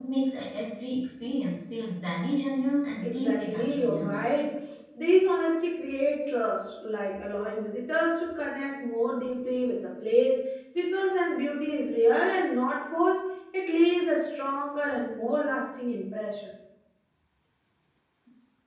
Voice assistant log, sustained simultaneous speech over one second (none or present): present